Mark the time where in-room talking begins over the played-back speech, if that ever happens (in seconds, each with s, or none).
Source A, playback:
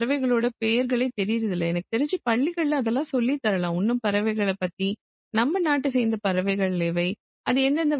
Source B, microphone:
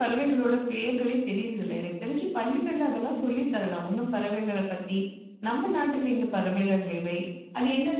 none